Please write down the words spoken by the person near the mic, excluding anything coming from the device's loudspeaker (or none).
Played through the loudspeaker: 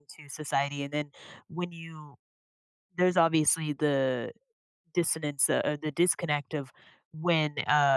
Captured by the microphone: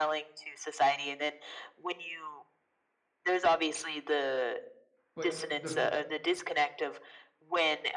But the